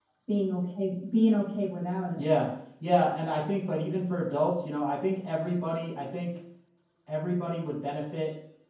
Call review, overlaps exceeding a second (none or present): none